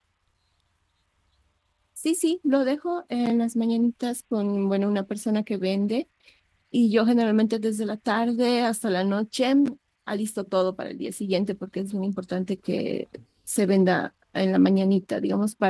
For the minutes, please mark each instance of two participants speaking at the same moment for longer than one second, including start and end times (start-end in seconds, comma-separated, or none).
none